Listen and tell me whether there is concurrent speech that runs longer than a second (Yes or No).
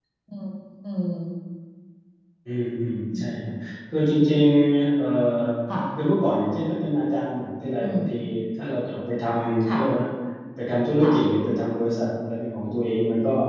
No